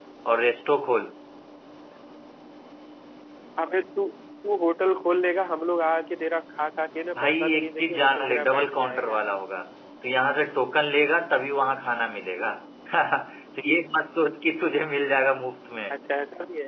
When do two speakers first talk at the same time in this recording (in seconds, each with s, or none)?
7.1 s